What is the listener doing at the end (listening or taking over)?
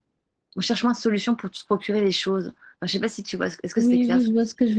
taking over